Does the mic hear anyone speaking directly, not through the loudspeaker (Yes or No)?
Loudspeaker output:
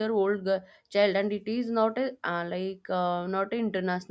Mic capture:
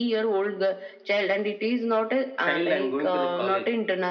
Yes